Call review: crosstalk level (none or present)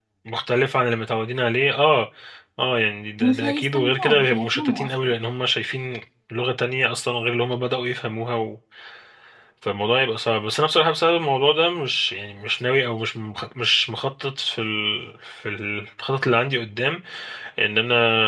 present